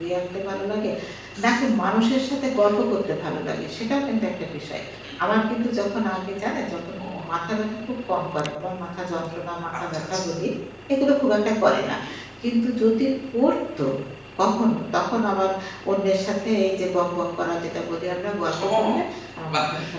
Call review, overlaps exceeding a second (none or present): none